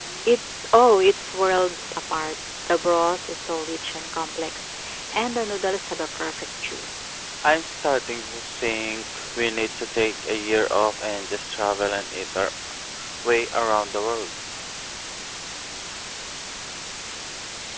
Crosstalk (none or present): none